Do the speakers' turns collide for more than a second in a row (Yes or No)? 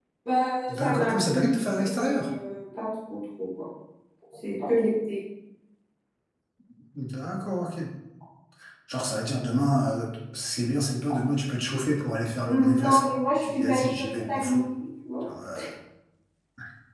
Yes